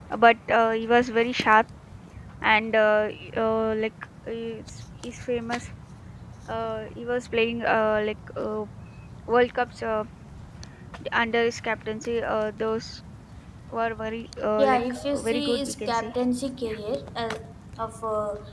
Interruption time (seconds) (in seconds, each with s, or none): 14.6 s